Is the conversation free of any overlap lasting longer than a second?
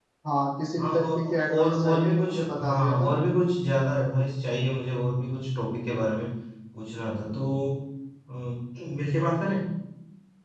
No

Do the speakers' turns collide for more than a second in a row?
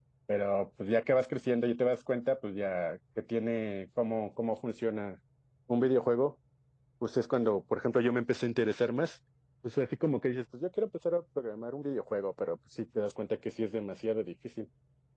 No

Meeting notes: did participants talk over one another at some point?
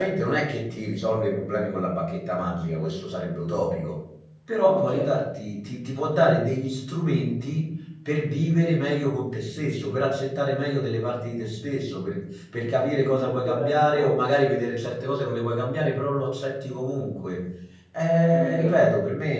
Yes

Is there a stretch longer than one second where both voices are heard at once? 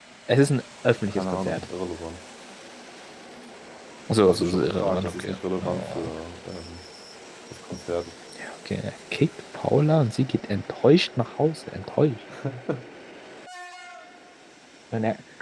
Yes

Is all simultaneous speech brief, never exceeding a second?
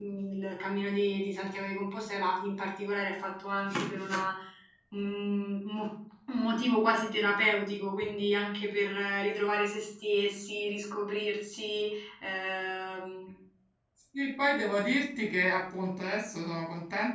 Yes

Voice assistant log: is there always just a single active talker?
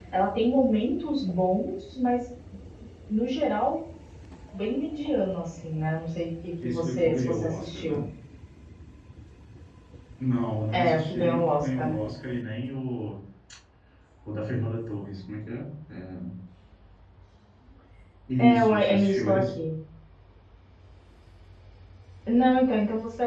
No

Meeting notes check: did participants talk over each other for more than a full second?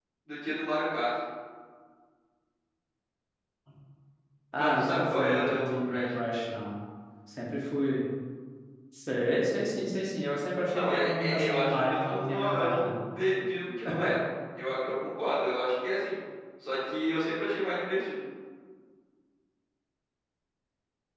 Yes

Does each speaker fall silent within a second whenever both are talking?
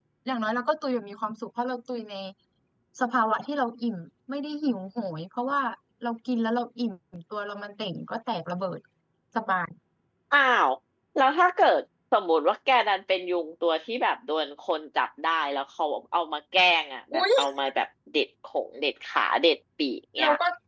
Yes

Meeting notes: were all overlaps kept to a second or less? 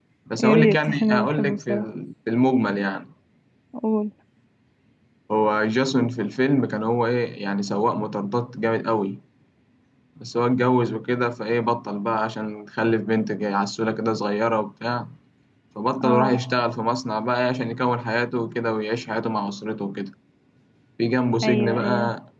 No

